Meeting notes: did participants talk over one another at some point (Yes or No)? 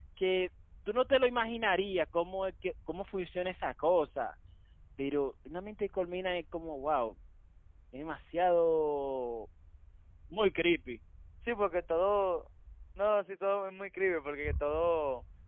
No